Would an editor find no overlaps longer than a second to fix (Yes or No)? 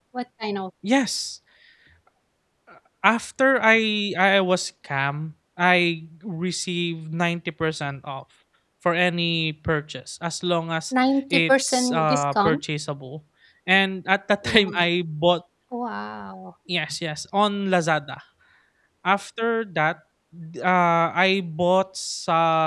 No